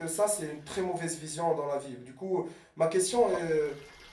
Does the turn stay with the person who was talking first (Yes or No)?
Yes